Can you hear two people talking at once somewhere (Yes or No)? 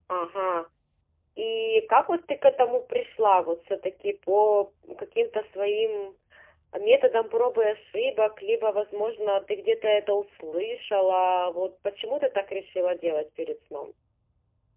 No